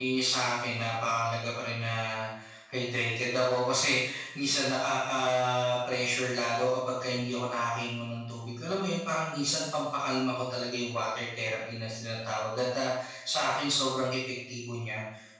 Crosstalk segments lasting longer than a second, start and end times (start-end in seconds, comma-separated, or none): none